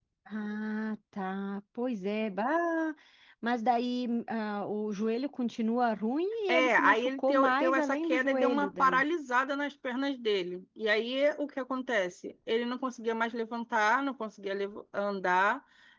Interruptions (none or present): present